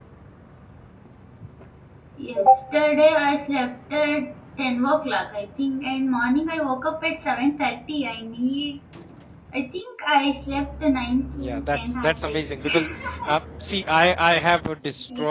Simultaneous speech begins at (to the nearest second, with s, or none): 11 s